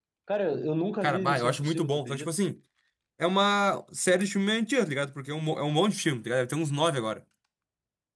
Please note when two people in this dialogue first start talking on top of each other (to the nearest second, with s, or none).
1 s